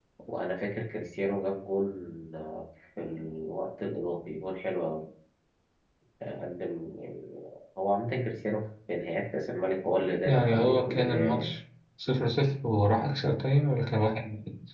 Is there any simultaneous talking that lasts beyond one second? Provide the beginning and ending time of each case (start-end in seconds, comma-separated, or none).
10.2-11.5